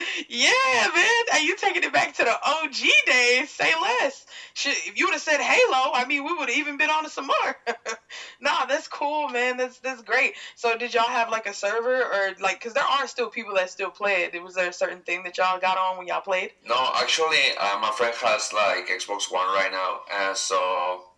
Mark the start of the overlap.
none

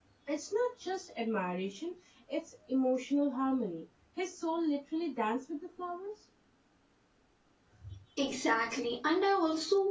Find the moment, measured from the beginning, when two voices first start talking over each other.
none

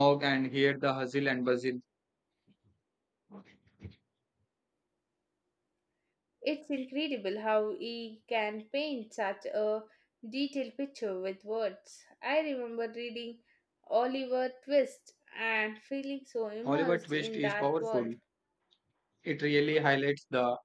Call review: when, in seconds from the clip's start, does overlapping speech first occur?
17 s

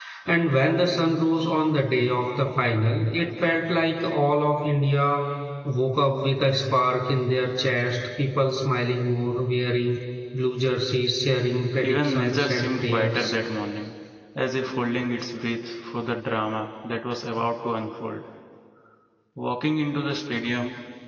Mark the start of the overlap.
12 s

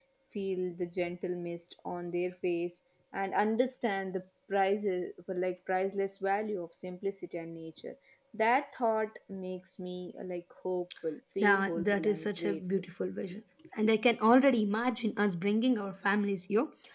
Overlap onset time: 11 s

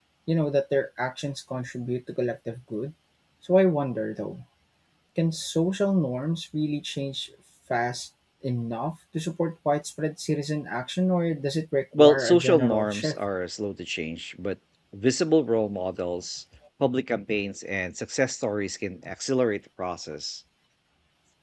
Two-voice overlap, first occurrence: 12 s

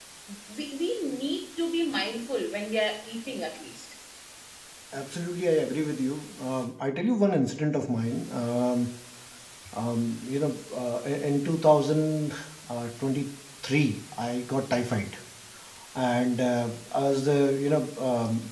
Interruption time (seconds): none

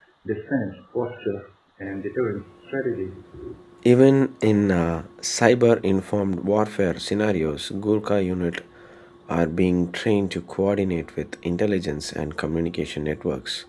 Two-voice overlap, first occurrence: none

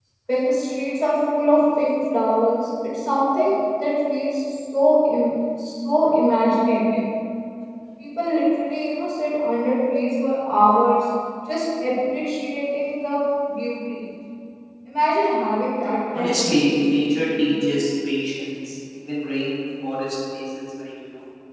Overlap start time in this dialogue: 16 s

